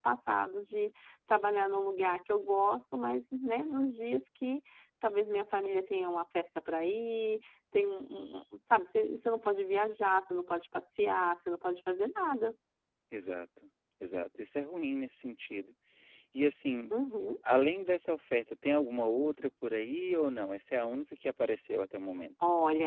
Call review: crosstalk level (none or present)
none